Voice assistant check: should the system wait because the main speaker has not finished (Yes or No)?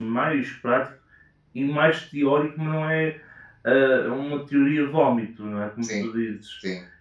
Yes